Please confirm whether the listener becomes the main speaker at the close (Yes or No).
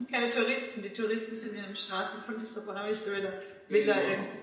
Yes